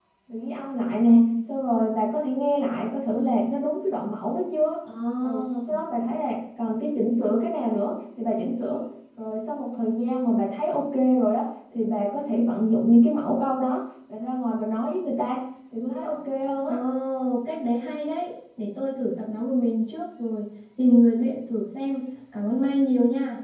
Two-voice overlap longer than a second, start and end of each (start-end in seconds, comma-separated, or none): none